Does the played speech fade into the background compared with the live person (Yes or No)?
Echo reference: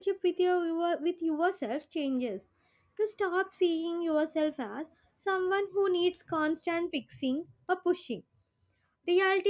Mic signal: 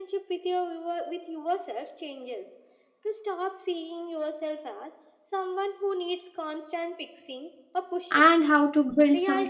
Yes